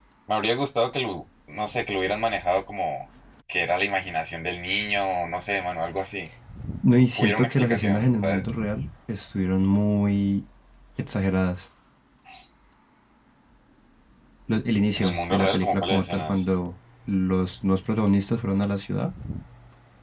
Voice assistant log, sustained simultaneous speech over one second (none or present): present